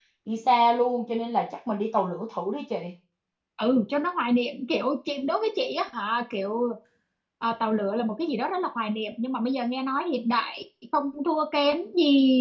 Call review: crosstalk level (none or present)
none